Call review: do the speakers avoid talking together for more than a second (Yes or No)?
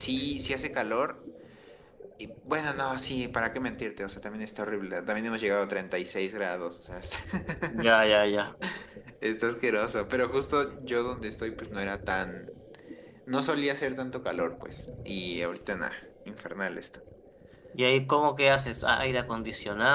Yes